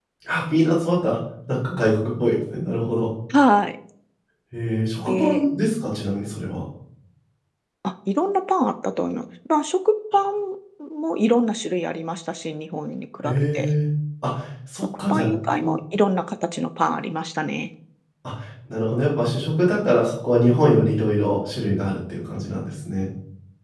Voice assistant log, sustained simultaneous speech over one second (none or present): none